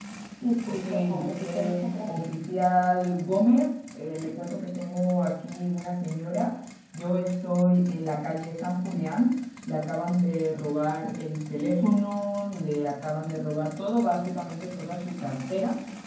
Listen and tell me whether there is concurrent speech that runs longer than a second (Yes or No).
Yes